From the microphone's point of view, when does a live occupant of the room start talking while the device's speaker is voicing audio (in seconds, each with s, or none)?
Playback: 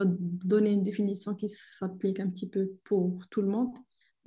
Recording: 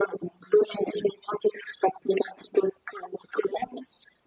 none